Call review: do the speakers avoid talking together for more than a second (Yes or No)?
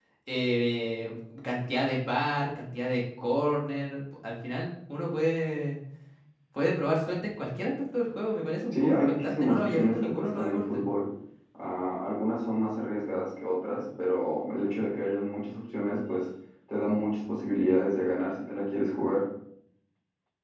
No